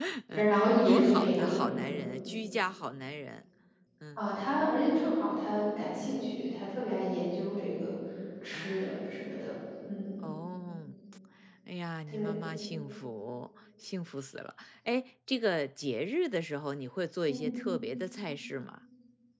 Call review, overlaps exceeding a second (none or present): present